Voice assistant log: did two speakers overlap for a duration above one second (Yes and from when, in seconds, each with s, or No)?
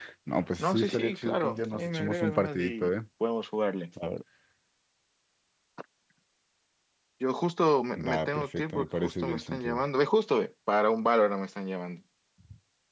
Yes, from 0.6 s